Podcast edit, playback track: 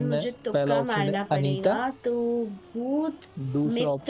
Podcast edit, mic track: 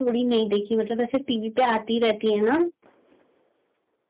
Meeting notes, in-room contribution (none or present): present